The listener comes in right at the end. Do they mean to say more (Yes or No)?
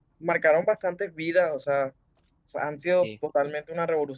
No